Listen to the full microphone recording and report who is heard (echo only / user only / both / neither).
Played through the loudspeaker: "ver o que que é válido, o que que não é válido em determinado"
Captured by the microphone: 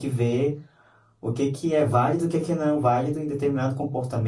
echo only